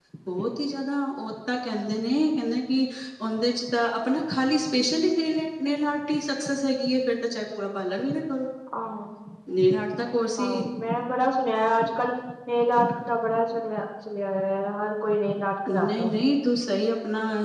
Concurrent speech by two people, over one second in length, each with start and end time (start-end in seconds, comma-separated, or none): none